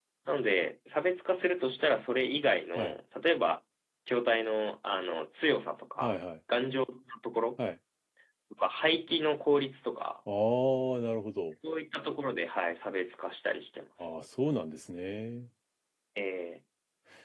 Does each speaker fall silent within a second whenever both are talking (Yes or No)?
Yes